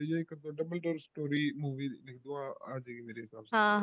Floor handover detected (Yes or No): Yes